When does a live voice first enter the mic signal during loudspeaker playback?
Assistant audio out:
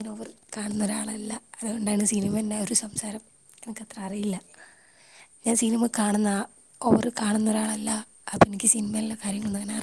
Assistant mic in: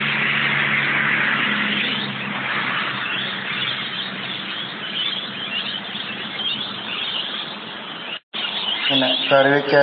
9 s

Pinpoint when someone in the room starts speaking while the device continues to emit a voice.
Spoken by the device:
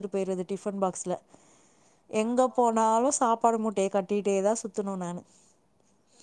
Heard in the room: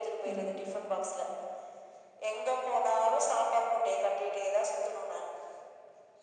0 s

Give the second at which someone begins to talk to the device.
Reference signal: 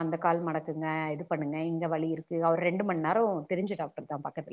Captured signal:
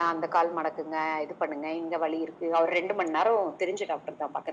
none

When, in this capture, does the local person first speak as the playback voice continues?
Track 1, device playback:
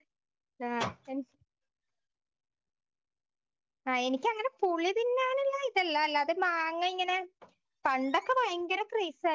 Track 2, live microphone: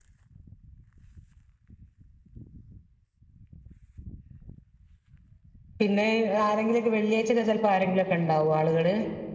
6 s

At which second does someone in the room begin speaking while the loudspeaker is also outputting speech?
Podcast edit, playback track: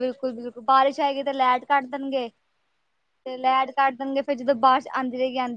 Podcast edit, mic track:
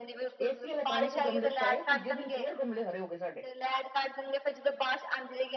0 s

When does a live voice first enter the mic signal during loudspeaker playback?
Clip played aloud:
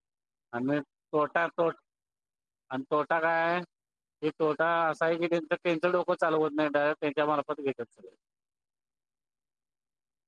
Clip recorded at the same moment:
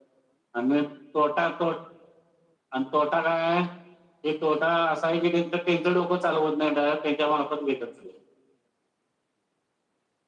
none

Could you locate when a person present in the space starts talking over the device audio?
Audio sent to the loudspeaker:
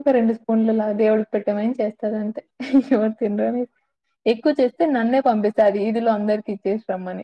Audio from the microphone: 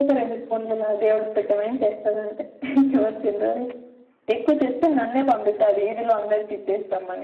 none

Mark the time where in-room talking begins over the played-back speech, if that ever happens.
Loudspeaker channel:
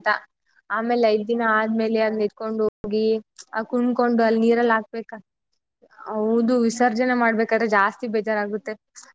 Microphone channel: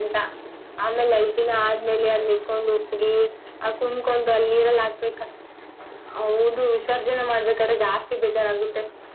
none

